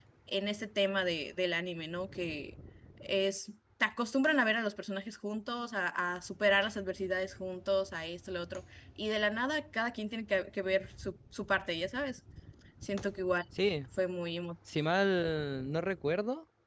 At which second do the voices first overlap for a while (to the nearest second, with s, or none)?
none